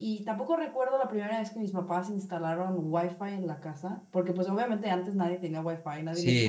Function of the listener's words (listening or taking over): taking over